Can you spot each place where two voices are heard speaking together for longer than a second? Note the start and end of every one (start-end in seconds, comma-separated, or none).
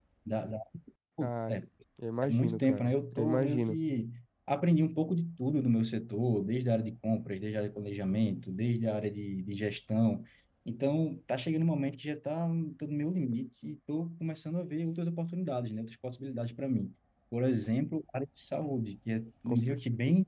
2.2-3.8